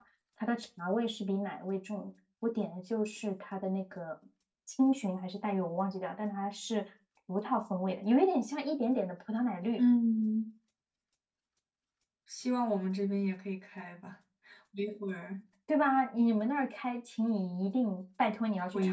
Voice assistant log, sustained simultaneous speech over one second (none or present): none